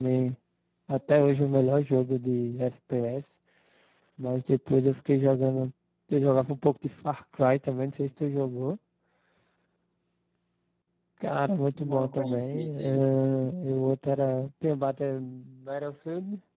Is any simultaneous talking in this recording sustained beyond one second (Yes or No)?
Yes